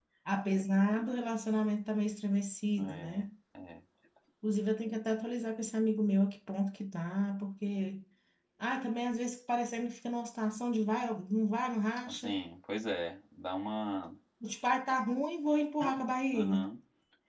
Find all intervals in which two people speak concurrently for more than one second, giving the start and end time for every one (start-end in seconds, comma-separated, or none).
none